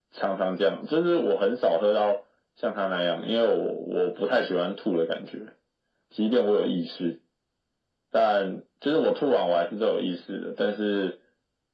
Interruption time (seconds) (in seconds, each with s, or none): none